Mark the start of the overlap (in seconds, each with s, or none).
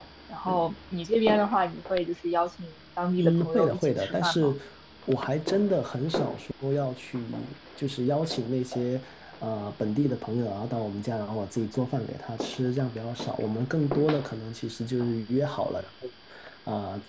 3.2 s